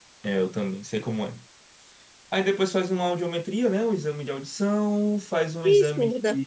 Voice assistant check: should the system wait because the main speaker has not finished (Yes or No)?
Yes